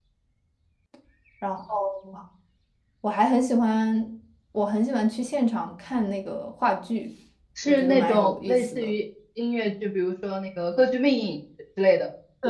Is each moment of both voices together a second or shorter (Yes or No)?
No